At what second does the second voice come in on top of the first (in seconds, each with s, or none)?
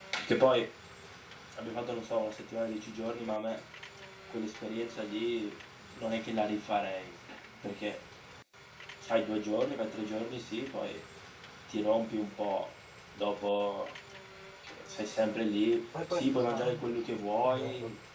15.9 s